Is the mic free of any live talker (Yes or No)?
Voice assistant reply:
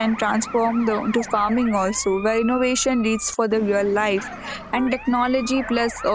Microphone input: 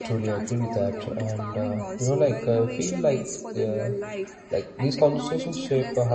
No